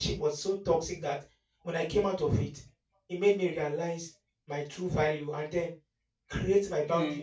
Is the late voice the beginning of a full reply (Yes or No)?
No